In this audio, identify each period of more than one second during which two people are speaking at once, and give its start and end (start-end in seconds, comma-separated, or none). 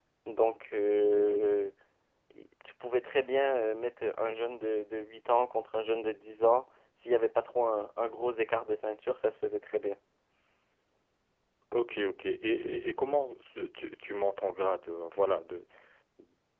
none